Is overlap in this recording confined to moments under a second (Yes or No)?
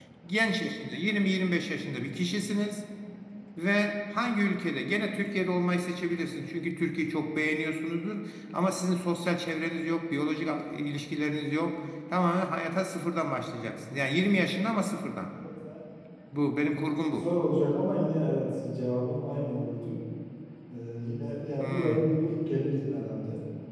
Yes